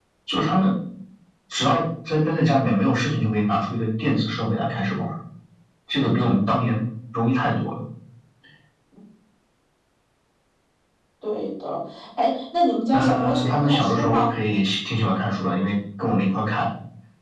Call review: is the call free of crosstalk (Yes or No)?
No